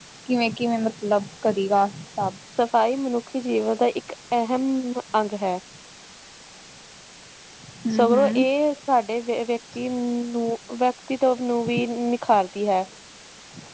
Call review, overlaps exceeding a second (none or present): none